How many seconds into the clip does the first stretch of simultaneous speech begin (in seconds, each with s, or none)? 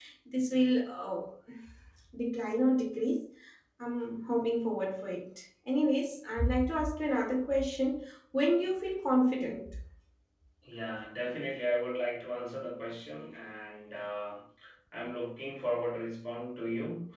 none